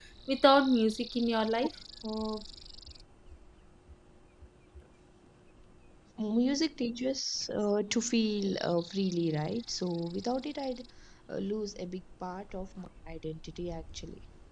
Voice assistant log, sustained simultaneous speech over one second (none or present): none